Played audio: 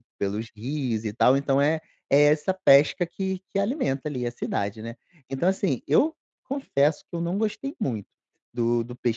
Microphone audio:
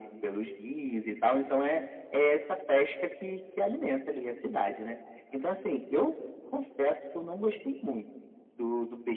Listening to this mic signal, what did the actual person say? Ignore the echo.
none

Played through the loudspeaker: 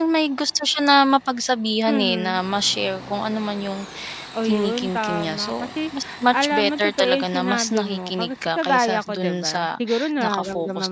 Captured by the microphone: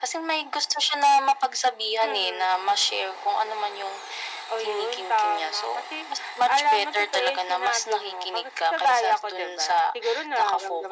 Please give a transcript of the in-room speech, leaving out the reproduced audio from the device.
none

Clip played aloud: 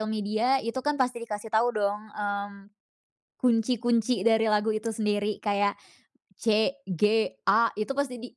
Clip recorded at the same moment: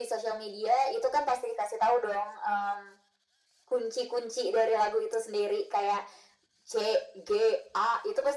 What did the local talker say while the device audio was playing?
none

